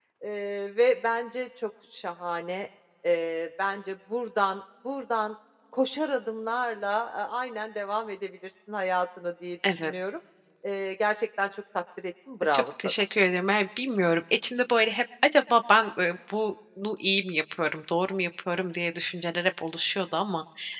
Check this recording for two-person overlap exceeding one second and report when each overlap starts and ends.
none

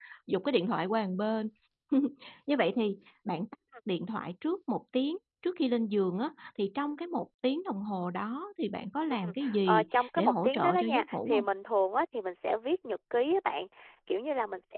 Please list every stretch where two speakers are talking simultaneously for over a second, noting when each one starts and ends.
9.2-11.4

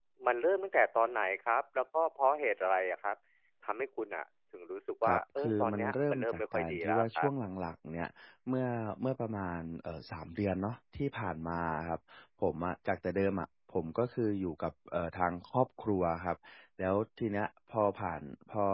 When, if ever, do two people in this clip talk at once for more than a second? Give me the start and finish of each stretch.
5.1-7.3

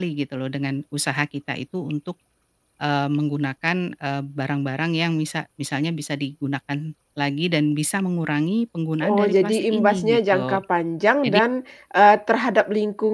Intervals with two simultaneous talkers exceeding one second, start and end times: 9.1-10.6

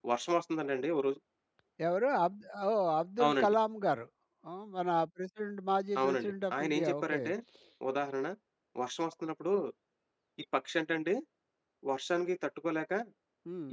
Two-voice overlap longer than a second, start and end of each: 6.0-7.2

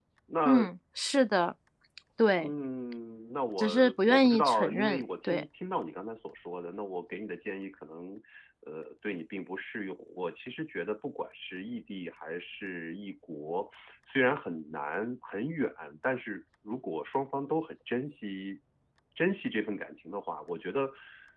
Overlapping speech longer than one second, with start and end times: 3.6-5.4

